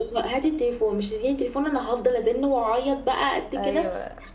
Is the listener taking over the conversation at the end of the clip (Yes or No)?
Yes